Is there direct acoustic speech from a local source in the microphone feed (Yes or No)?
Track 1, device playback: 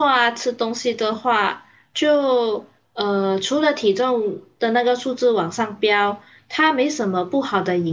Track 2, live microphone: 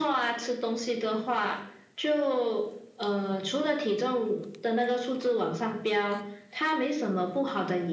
No